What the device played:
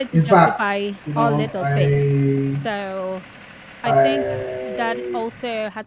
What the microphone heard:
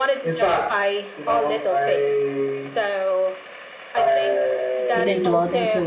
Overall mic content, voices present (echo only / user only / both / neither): both